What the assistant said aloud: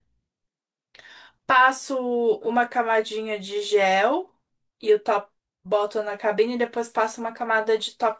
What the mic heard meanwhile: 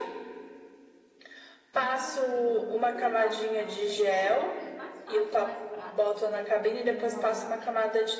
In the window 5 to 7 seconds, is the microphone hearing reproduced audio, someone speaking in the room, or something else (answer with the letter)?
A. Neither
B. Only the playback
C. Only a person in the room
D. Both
D